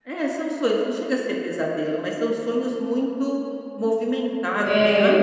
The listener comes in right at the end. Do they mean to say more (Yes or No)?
Yes